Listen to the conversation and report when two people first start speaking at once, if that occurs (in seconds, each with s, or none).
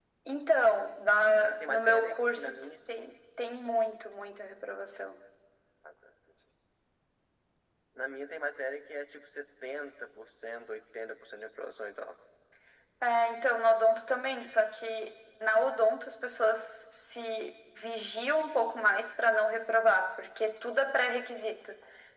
1.3 s